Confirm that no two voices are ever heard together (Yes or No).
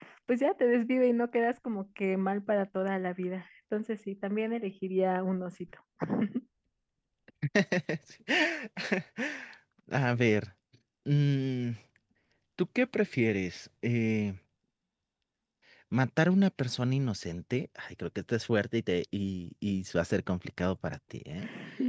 Yes